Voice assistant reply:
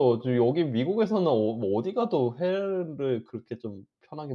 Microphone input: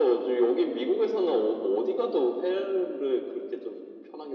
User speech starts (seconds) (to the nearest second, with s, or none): none